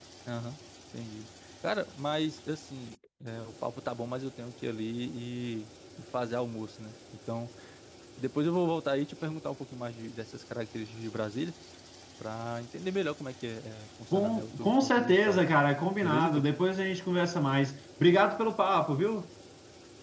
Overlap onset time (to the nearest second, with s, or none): 14 s